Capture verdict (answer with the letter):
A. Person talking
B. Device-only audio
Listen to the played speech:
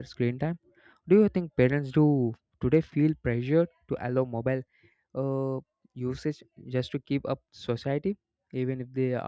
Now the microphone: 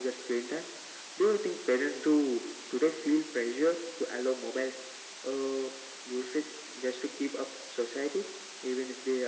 B